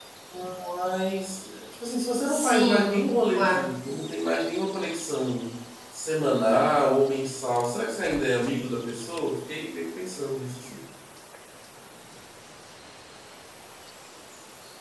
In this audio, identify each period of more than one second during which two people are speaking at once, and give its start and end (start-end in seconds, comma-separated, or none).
2.2-3.7